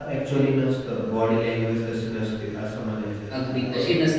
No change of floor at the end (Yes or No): No